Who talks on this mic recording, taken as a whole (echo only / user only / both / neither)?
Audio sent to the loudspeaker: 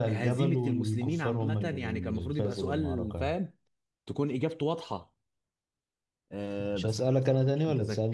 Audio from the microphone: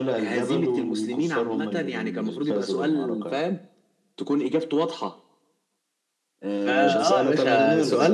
both